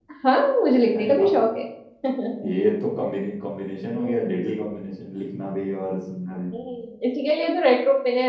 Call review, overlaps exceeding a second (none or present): none